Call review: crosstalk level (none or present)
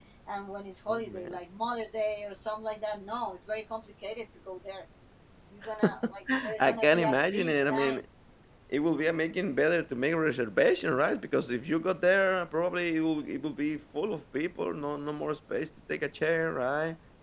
present